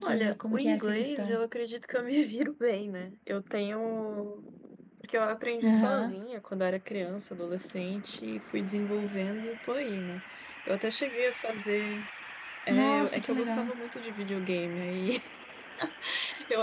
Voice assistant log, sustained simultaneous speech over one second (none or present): present